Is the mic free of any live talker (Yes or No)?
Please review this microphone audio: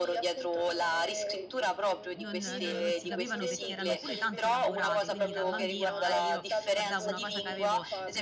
No